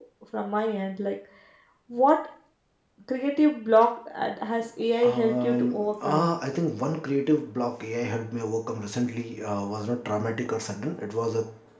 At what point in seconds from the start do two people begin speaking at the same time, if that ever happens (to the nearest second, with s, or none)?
5 s